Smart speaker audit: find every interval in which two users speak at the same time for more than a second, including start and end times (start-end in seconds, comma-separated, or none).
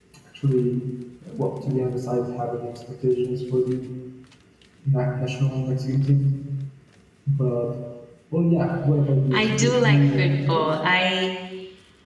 9.3-10.7